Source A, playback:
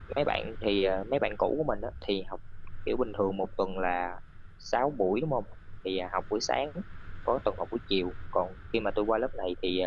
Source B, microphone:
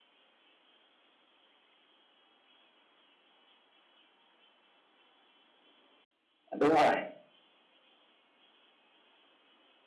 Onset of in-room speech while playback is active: 6.6 s

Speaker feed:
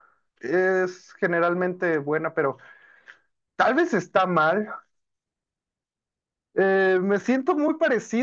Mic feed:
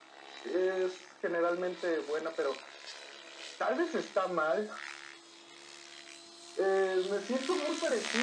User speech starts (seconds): none

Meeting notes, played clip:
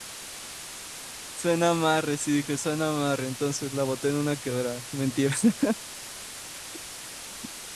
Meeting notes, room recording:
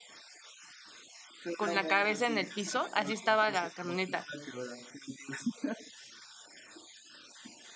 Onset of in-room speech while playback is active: 1.6 s

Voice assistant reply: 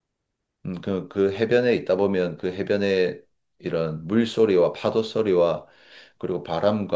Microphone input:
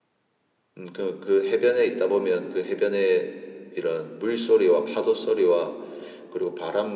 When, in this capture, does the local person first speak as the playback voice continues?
none

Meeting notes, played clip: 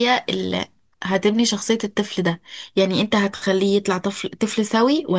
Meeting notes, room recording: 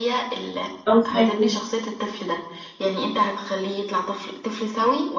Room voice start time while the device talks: 0.9 s

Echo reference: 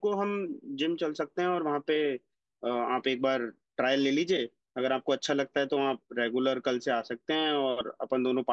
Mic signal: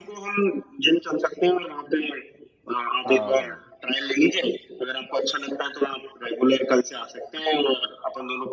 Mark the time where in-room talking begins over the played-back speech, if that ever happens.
3.0 s

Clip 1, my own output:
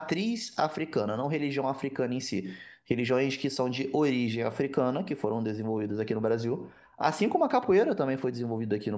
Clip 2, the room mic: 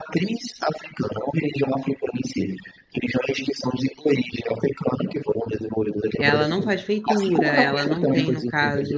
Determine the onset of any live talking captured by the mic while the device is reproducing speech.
6.2 s

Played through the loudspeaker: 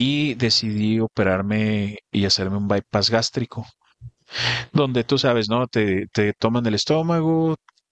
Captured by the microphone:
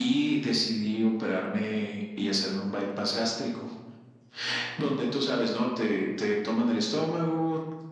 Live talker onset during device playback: none

